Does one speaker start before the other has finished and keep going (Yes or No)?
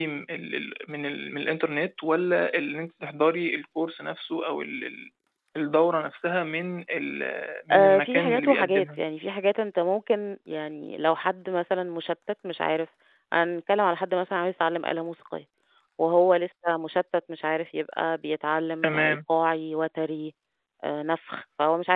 Yes